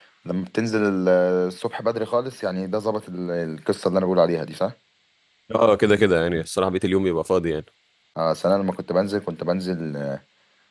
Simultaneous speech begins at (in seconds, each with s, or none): none